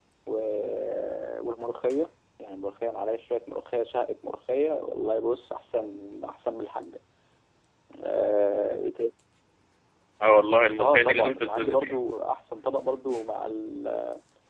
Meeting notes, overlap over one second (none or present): present